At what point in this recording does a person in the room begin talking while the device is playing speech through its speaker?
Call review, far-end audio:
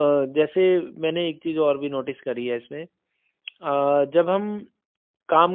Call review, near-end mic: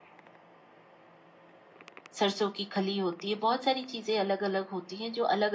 2.2 s

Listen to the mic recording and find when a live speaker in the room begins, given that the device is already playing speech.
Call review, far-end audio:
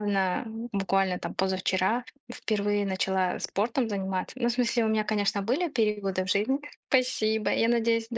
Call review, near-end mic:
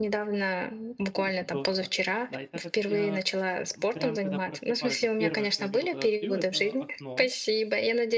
1.1 s

